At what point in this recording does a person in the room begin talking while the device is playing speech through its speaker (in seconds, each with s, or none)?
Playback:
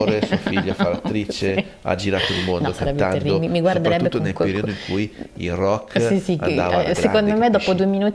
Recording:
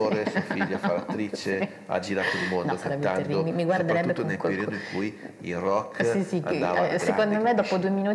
none